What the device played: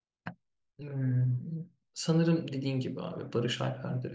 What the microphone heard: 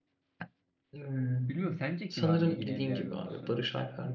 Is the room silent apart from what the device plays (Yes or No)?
No